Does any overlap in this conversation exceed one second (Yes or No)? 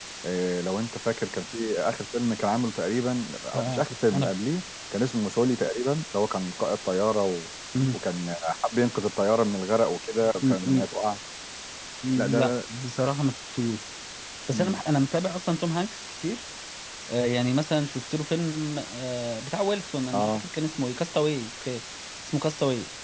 No